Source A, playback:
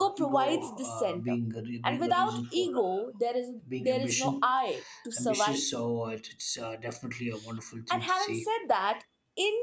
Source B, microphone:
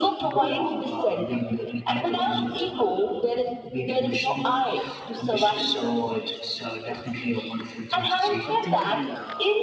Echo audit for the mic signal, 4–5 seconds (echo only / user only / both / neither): echo only